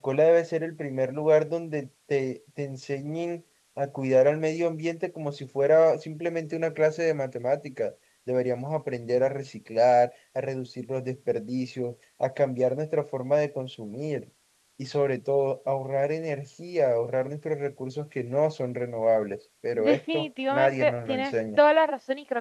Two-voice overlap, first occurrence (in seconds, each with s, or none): 19.8 s